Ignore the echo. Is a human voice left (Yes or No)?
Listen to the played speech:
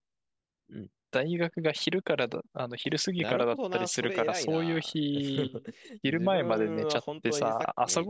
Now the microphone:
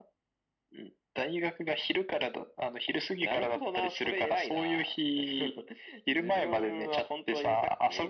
No